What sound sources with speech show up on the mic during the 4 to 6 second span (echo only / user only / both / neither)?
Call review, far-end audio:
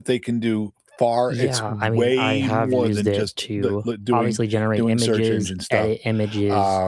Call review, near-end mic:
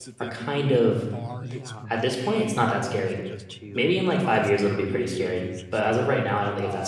both